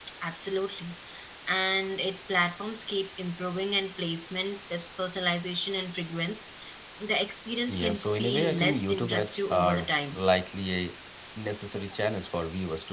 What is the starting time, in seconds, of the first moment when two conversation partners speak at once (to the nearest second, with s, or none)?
8 s